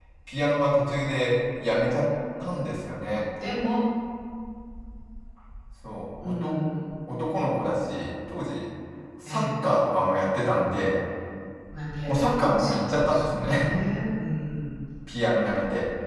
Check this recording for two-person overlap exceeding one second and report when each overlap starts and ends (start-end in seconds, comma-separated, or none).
12.1-13.7